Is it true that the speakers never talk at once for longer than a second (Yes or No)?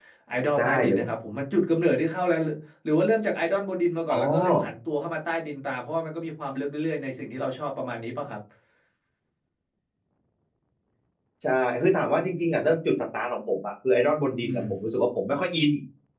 Yes